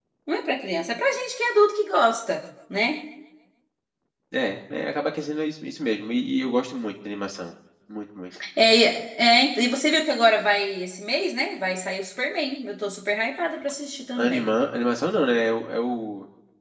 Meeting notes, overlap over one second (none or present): none